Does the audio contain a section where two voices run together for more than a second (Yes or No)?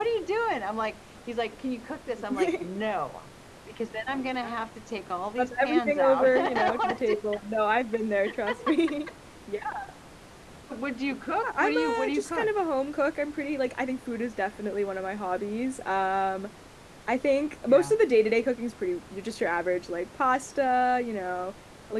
Yes